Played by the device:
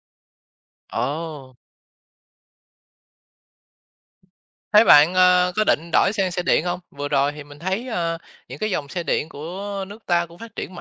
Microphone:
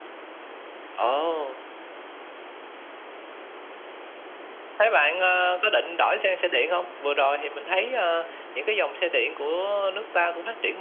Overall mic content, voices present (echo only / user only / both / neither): echo only